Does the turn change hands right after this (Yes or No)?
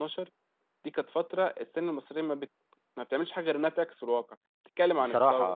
No